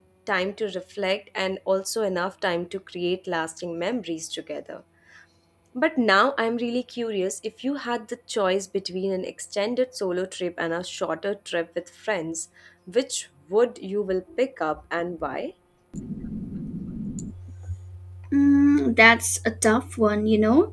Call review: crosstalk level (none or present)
none